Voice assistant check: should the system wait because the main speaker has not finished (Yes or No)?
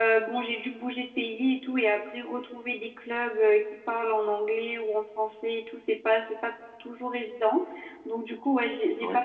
Yes